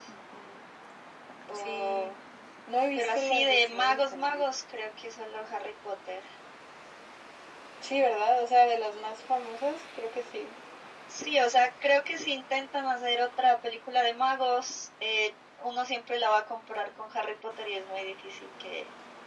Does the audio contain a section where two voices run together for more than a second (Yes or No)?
Yes